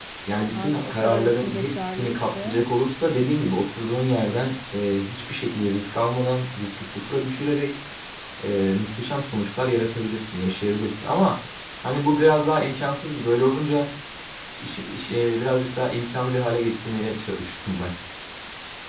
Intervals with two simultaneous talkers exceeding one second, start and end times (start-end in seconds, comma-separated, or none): 0.5-2.6